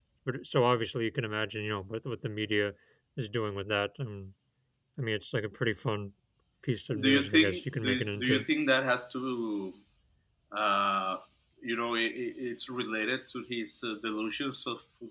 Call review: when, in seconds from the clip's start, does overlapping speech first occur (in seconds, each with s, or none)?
7.0 s